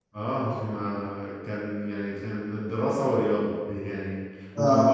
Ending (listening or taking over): listening